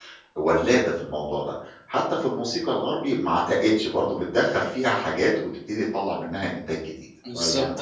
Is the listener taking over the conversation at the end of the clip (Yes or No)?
Yes